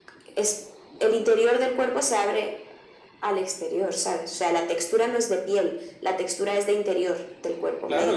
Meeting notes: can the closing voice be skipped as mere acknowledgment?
No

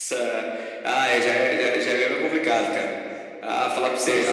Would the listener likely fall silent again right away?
Yes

